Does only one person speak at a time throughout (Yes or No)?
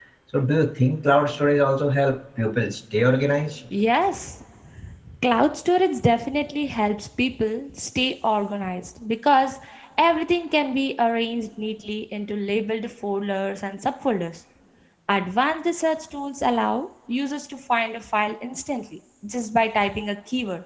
Yes